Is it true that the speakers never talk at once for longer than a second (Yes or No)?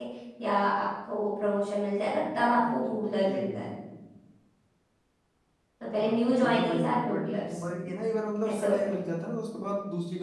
No